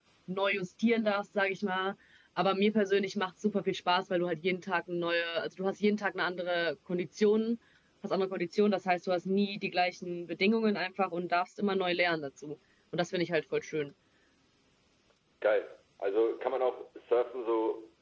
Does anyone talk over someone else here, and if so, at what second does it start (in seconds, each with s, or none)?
none